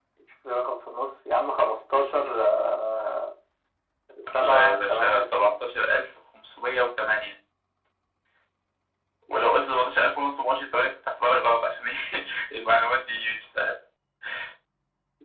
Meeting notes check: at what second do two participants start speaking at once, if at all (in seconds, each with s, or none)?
4.4 s